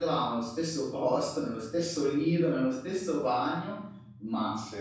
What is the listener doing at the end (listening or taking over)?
listening